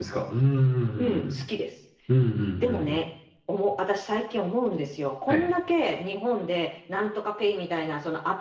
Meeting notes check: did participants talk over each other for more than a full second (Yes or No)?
No